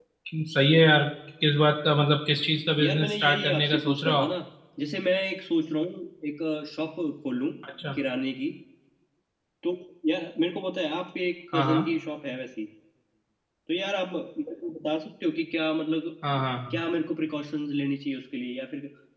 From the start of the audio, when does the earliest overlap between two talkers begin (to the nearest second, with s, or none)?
3 s